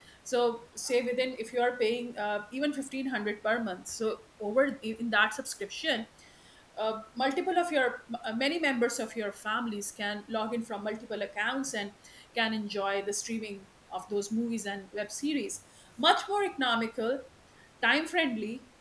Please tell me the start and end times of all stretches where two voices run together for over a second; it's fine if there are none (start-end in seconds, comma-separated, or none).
none